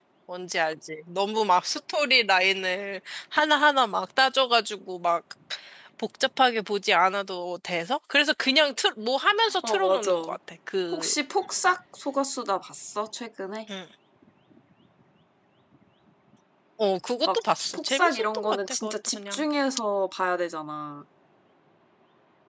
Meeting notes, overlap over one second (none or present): present